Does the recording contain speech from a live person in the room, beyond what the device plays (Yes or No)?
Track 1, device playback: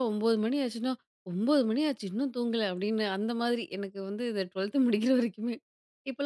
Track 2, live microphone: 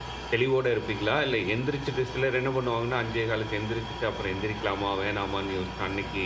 Yes